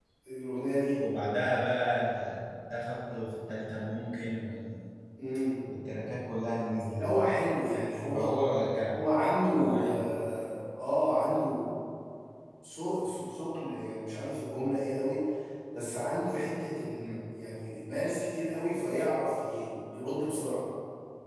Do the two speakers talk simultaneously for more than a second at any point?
No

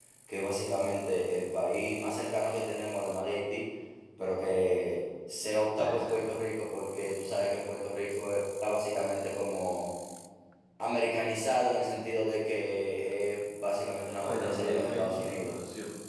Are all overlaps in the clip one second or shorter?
No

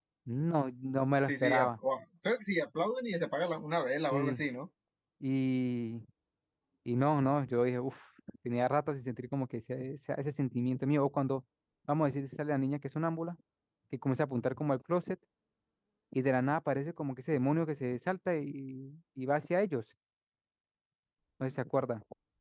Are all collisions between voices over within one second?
Yes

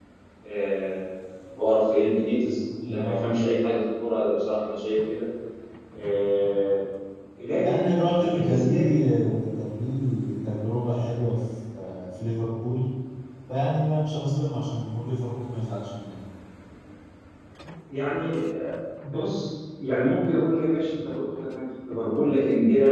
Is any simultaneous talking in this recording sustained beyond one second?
Yes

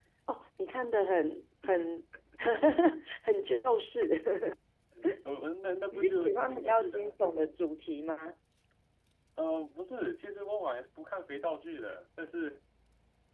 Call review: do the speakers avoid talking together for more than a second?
No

